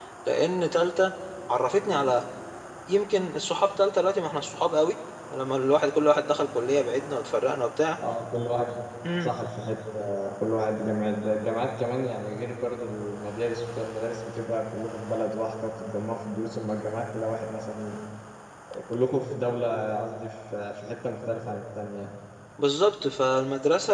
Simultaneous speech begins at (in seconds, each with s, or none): none